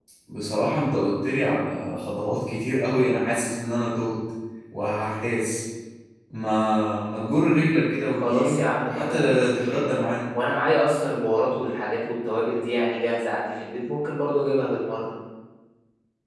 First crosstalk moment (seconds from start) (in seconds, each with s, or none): 8.1 s